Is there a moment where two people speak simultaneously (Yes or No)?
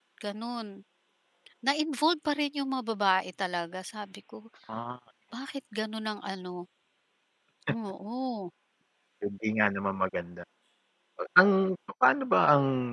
No